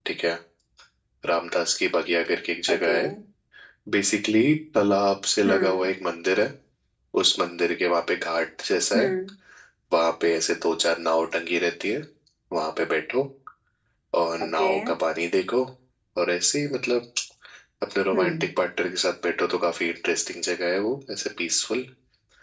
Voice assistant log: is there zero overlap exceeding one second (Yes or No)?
Yes